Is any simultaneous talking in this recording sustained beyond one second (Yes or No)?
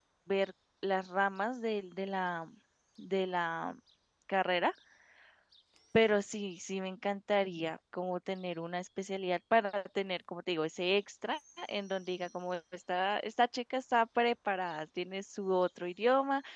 No